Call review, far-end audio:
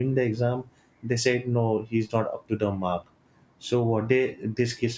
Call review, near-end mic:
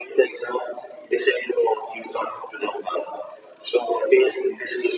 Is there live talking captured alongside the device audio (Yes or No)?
No